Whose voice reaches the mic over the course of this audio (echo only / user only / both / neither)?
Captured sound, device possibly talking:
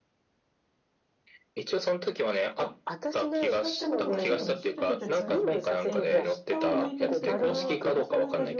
both